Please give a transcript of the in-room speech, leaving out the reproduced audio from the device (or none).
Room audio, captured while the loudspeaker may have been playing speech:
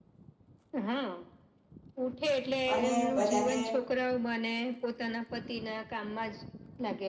અને બધાને